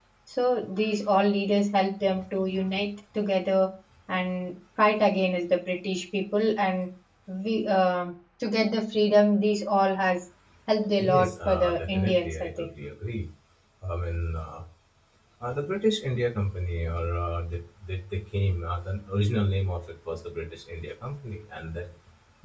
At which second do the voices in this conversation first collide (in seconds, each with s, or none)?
11.0 s